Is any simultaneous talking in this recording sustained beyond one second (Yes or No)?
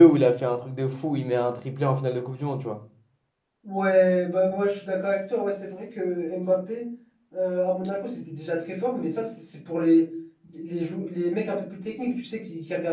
No